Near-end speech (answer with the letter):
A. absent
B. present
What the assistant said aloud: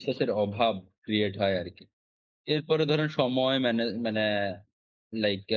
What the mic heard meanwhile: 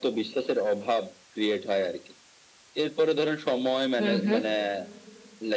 B